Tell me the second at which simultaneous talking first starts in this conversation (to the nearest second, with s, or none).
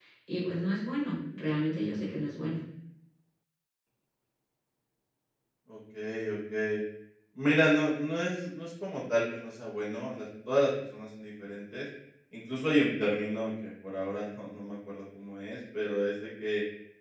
none